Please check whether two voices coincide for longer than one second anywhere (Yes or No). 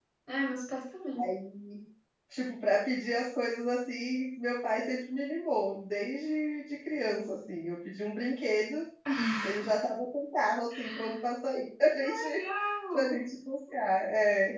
No